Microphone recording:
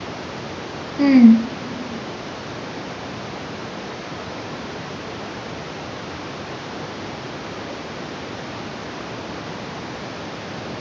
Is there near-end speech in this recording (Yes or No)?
Yes